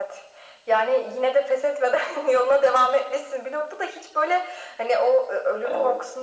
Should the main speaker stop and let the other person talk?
No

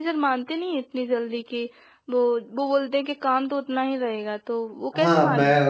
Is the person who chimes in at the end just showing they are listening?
No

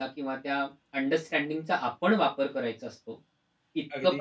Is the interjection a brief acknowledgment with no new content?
Yes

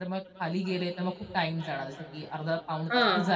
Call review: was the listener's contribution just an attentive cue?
Yes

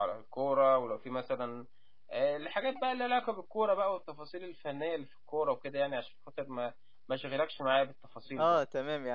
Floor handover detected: Yes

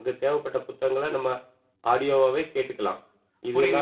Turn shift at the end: Yes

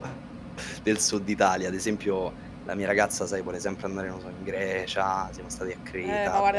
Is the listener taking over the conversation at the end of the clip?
Yes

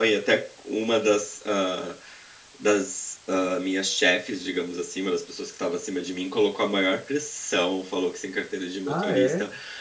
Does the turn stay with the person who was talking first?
Yes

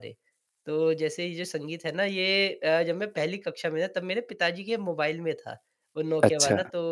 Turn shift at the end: No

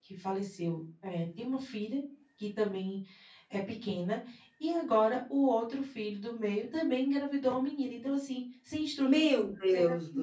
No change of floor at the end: No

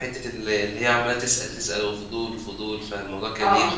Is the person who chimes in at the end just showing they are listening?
No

